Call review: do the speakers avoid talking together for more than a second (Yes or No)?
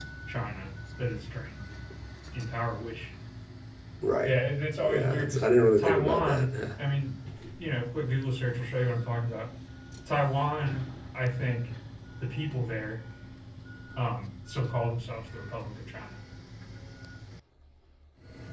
No